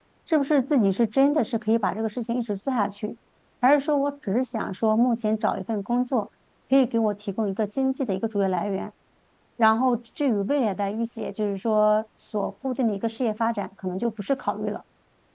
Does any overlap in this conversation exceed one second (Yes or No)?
No